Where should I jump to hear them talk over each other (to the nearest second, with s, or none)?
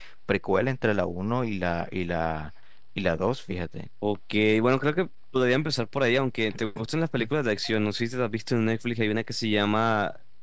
none